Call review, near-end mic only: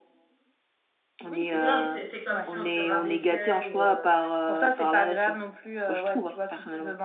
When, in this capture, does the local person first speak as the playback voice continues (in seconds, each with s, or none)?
1.5 s